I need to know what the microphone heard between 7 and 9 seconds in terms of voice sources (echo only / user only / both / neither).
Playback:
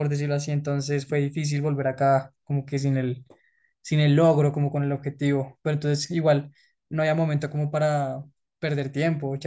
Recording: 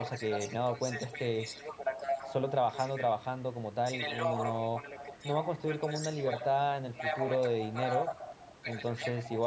both